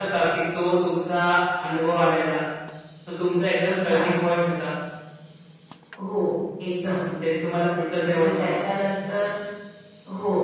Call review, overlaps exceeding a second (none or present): none